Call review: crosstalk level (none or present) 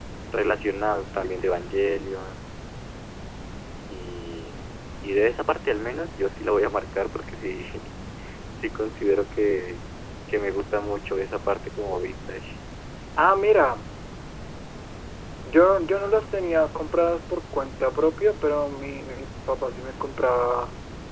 none